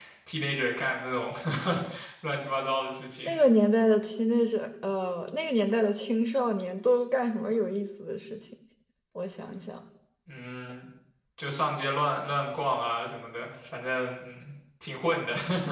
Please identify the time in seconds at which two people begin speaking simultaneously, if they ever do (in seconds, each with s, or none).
none